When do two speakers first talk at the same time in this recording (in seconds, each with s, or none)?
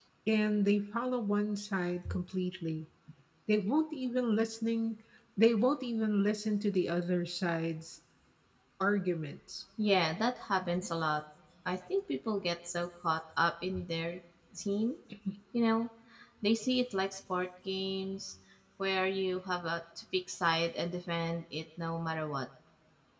none